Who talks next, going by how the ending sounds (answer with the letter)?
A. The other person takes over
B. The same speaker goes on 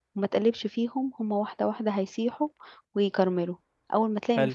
B